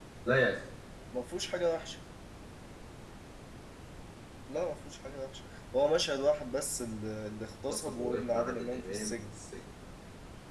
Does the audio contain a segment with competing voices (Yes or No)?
Yes